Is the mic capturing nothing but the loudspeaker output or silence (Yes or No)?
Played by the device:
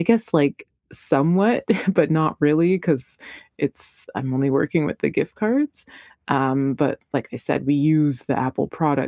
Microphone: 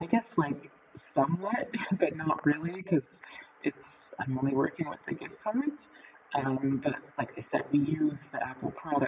Yes